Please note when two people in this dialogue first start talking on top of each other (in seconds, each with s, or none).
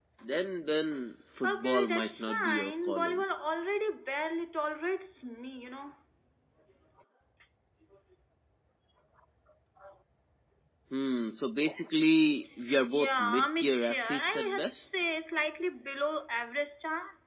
1.4 s